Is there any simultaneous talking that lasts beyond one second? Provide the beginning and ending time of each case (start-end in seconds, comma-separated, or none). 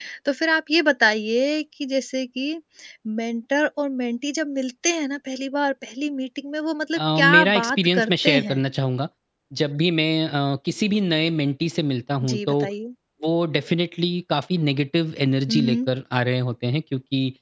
7.0-8.6